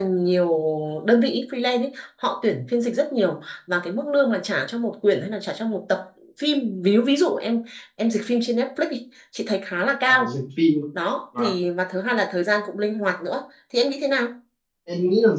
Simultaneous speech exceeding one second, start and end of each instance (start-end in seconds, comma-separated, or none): none